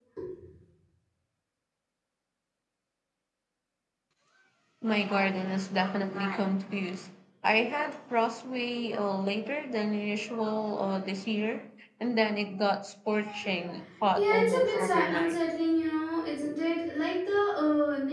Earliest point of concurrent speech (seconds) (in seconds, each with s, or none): 14.2 s